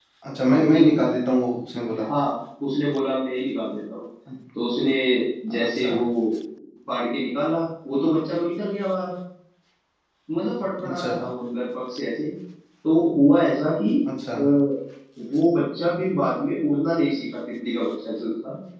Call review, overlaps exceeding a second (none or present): none